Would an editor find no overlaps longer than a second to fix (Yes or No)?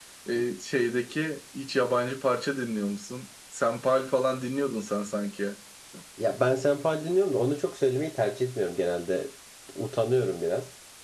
Yes